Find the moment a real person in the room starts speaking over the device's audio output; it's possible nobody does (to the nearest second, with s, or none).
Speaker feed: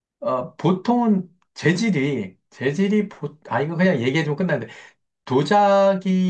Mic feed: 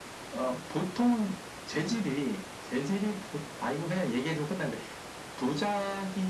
none